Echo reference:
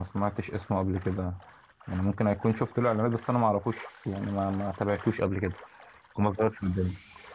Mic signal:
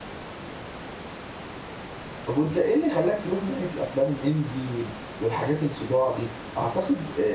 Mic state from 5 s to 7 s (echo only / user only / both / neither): user only